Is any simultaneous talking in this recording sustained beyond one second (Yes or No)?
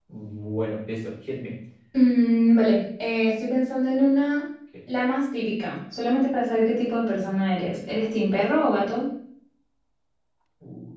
No